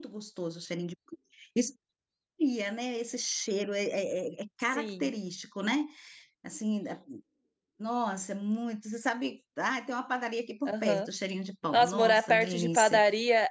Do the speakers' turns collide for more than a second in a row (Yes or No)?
Yes